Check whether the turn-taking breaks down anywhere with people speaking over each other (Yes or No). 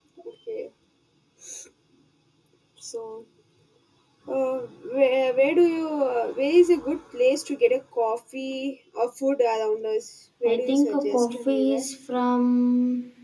Yes